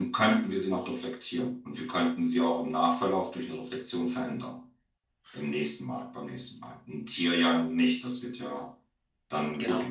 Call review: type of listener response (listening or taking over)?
listening